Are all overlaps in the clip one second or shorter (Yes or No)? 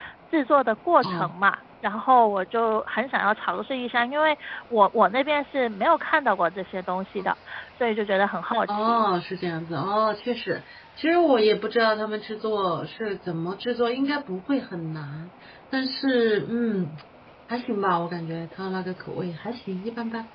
Yes